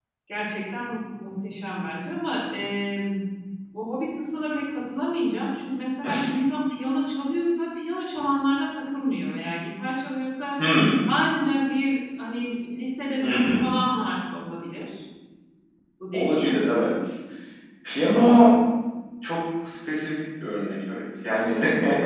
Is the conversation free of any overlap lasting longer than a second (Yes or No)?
Yes